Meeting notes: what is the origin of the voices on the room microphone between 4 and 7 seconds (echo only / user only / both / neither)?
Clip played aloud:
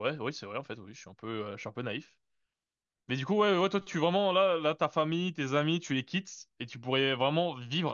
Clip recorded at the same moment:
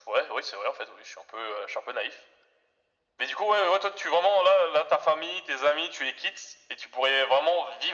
echo only